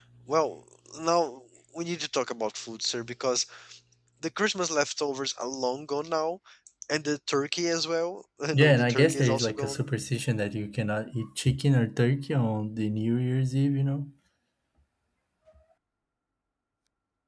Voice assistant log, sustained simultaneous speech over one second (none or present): present